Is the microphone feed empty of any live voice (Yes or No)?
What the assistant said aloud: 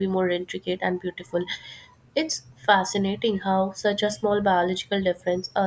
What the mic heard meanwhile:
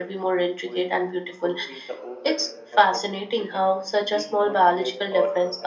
No